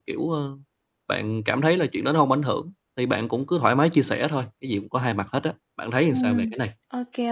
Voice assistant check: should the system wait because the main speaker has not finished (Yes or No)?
No